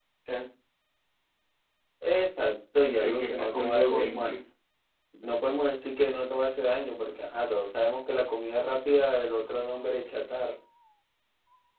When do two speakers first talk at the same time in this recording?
3.0 s

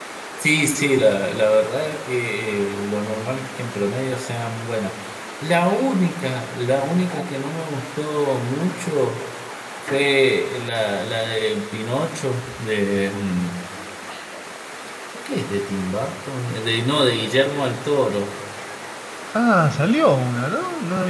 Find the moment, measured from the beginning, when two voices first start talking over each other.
none

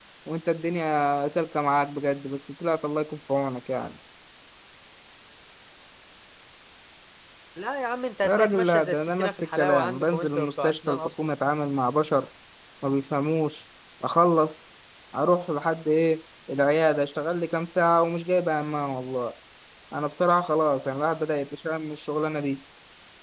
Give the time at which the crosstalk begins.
8.2 s

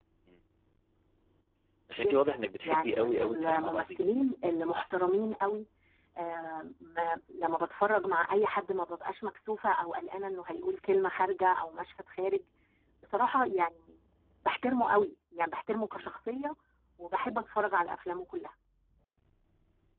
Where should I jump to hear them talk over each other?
2.0 s

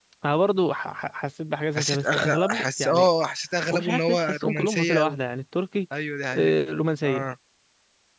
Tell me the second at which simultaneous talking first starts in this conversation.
1.8 s

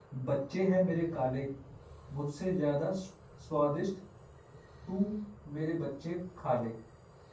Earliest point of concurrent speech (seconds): none

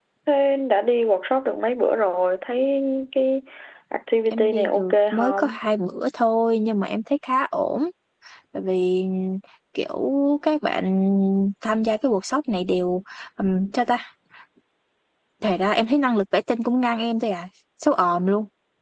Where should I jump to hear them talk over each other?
4.3 s

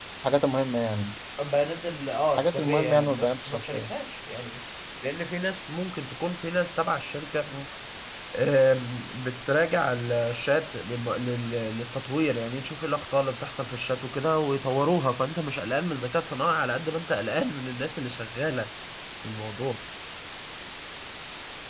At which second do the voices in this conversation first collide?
2.3 s

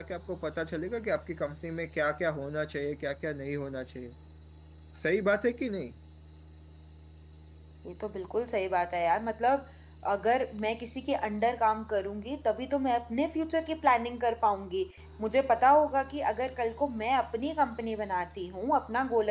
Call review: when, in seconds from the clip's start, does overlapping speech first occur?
none

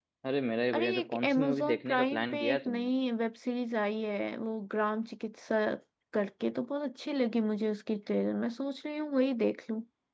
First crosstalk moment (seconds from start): 0.7 s

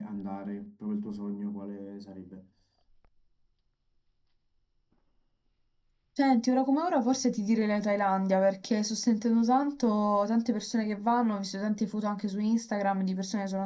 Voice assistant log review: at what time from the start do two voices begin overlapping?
none

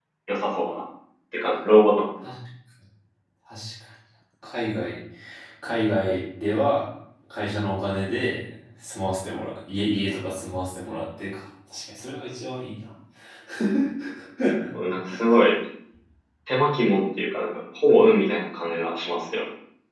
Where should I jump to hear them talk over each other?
none

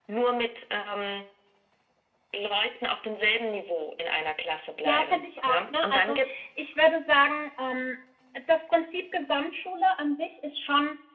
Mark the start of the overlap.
4.8 s

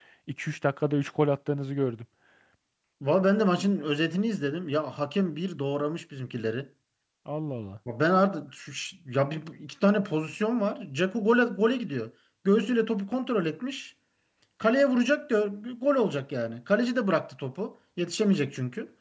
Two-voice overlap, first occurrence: none

